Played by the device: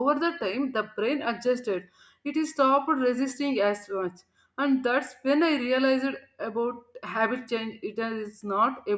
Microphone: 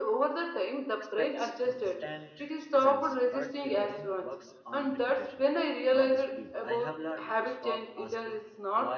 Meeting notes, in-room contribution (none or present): present